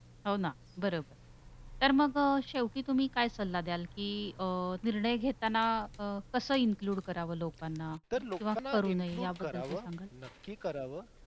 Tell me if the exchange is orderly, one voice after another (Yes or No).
No